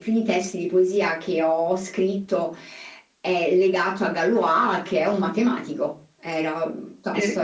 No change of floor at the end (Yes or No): No